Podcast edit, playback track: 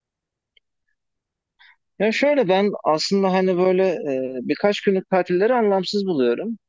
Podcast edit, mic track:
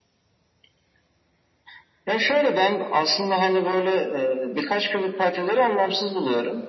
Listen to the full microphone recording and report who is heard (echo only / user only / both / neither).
echo only